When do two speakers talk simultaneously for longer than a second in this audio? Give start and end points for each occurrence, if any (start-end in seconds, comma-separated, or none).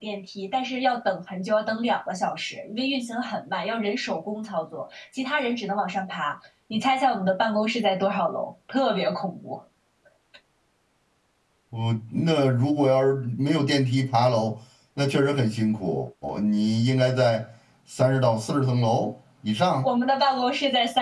none